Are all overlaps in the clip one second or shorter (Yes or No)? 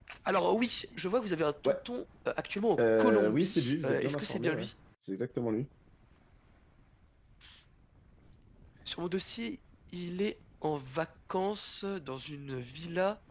No